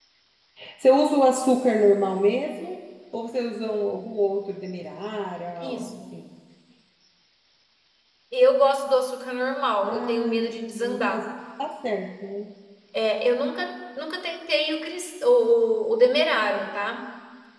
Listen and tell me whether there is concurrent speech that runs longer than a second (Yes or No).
Yes